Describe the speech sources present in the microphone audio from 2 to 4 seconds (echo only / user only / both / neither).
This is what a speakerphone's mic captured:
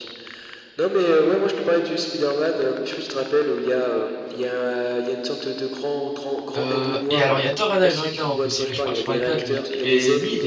echo only